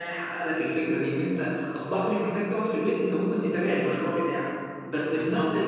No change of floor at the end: Yes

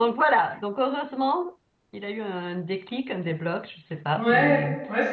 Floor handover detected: Yes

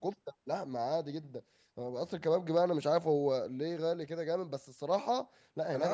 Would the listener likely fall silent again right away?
No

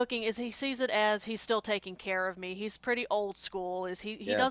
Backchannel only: Yes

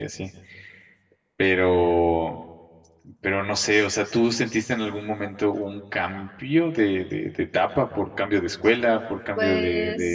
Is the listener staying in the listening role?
Yes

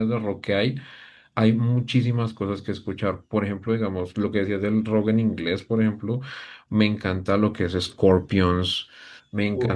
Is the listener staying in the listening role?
Yes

